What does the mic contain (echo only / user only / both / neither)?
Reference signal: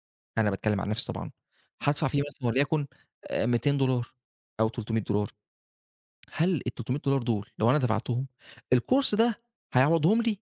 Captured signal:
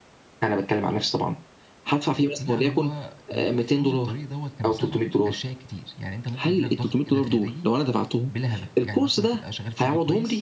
both